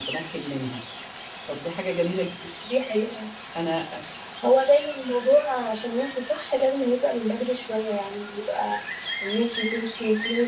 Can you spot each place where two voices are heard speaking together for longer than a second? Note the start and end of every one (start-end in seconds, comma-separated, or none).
none